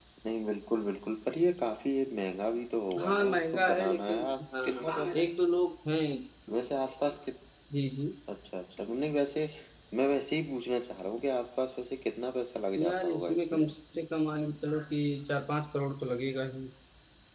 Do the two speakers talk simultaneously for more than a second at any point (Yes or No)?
Yes